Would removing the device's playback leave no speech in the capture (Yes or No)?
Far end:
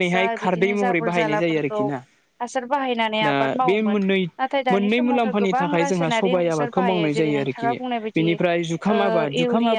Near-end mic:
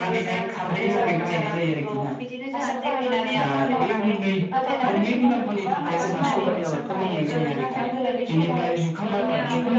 No